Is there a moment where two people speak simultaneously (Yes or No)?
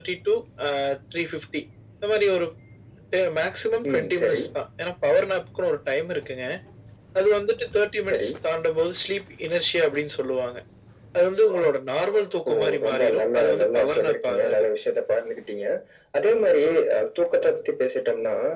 Yes